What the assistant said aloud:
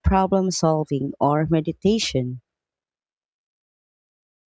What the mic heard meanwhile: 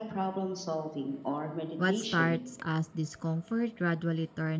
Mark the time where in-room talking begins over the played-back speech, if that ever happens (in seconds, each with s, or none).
1.8 s